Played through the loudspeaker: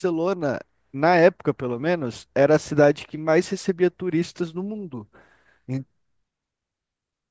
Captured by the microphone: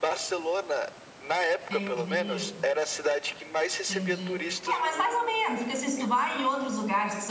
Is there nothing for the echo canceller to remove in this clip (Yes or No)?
No